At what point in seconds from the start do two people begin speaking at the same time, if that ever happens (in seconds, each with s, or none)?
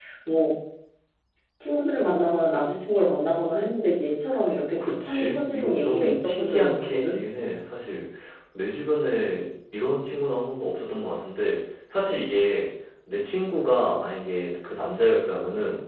4.8 s